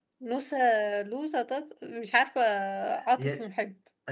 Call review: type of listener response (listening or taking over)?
taking over